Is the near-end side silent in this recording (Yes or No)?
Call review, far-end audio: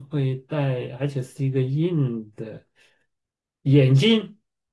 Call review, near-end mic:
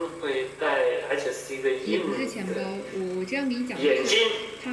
No